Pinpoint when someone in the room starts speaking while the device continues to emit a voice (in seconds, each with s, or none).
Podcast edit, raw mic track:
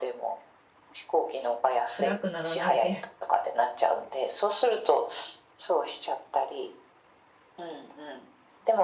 1.9 s